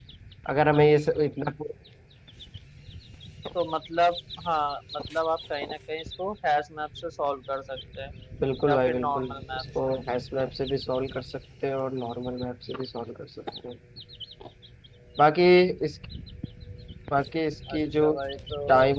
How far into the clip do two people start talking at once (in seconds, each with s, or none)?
8.7 s